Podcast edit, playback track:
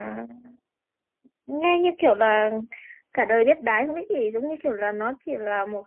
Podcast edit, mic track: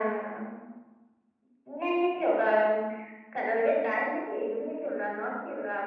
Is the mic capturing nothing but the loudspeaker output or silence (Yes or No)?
Yes